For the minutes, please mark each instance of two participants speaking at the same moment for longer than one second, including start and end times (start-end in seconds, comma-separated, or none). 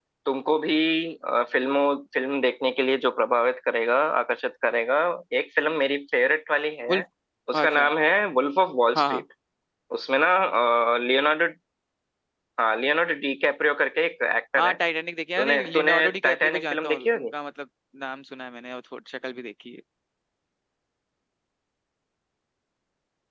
15.4-17.3